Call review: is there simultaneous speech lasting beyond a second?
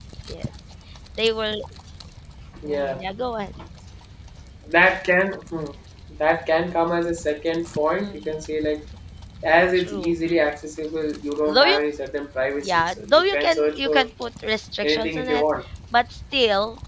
Yes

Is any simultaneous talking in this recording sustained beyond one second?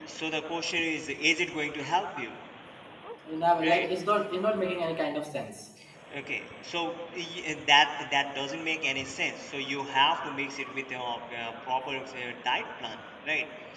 No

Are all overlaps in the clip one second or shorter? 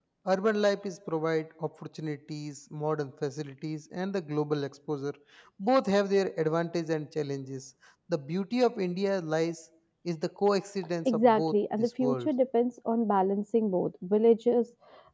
No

